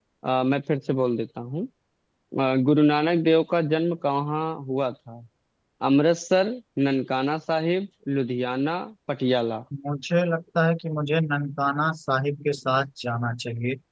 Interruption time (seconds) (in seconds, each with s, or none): none